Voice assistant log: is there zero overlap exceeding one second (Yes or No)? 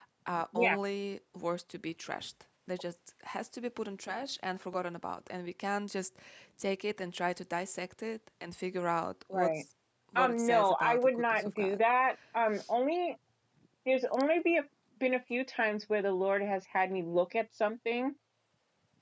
No